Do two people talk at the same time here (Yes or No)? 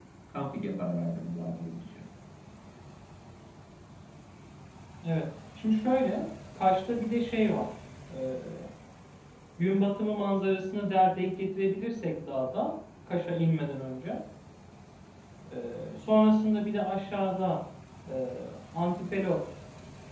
No